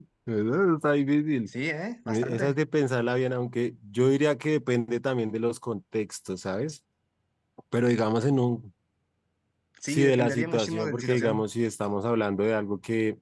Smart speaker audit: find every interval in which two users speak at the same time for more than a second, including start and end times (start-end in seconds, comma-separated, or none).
9.9-11.4